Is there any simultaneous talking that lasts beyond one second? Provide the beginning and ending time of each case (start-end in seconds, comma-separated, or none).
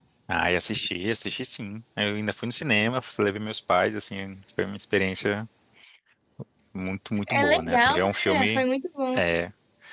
7.3-8.6